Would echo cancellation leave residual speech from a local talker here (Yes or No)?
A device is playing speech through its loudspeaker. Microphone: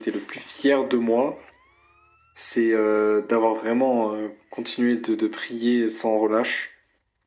No